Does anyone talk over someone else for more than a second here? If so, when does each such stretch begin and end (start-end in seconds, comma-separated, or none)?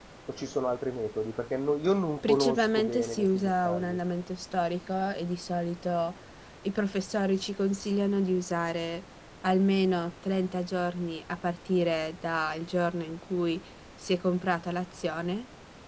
2.3-4.0